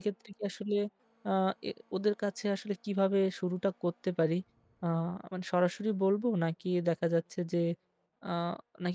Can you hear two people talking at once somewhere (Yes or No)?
No